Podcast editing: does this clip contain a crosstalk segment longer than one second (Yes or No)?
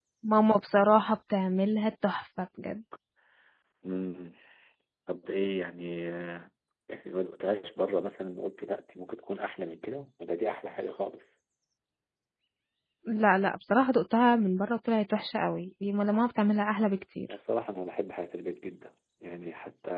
No